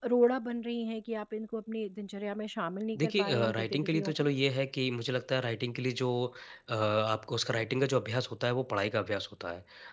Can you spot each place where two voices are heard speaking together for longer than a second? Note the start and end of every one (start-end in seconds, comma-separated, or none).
3.0-4.3